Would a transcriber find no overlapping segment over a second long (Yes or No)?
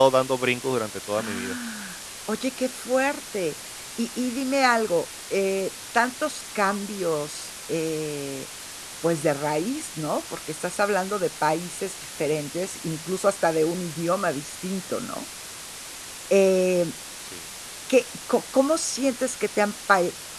Yes